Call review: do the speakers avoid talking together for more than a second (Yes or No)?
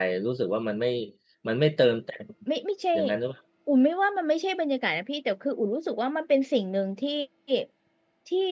Yes